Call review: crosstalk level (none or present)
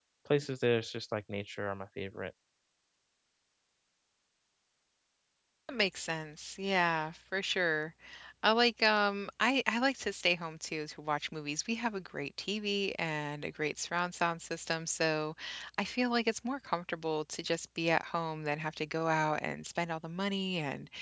none